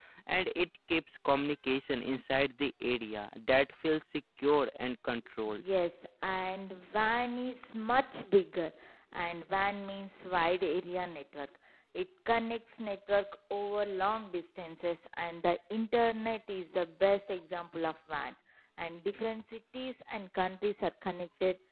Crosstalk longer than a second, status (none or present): none